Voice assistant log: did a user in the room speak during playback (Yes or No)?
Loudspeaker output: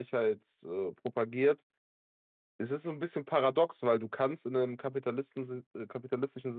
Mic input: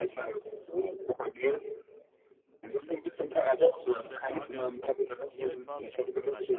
Yes